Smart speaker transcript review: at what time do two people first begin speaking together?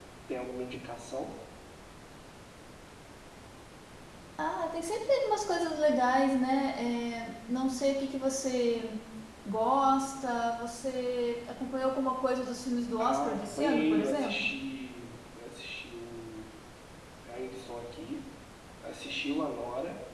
13.0 s

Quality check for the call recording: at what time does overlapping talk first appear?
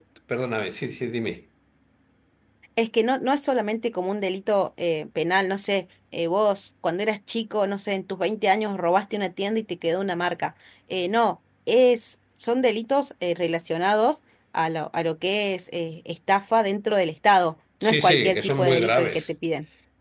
17.8 s

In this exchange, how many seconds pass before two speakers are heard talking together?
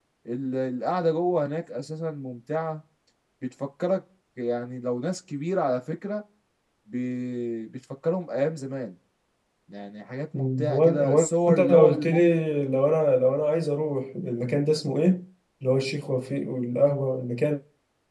10.3 s

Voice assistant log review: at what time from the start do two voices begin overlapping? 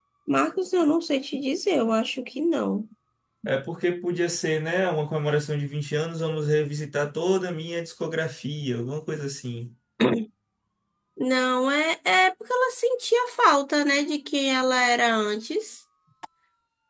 none

